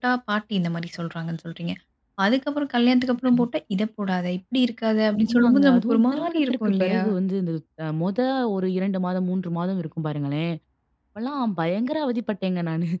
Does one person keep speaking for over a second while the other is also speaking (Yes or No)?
Yes